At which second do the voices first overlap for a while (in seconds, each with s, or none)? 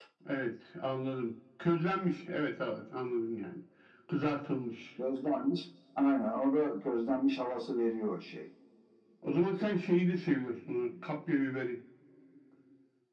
none